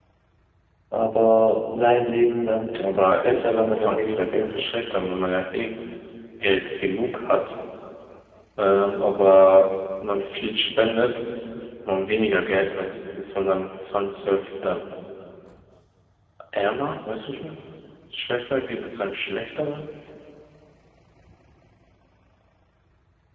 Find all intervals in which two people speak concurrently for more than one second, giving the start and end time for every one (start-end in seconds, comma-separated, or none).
2.8-4.6